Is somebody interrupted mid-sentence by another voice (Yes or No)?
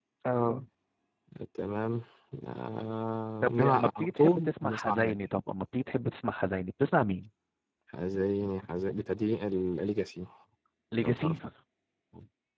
Yes